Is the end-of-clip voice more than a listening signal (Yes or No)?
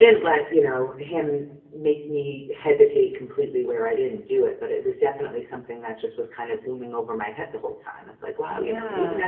No